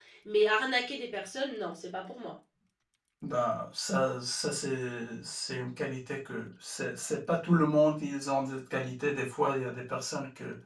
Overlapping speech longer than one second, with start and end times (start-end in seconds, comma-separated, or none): none